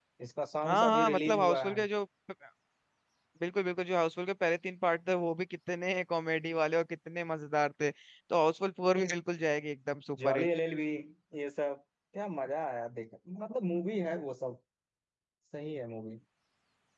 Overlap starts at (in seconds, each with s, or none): 0.6 s